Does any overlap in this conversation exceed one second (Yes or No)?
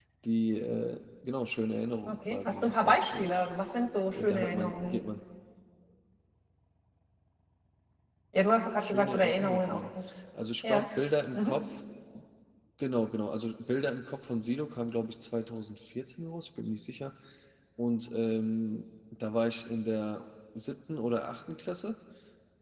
Yes